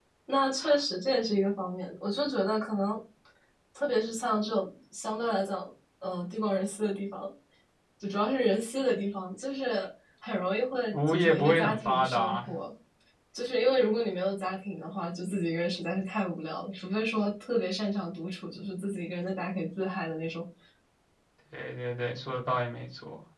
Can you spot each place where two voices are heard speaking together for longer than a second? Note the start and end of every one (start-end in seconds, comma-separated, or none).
10.9-12.5